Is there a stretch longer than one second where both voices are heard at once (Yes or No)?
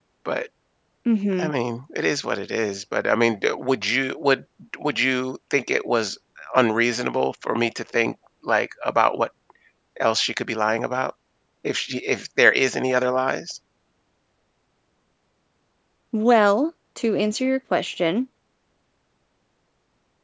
No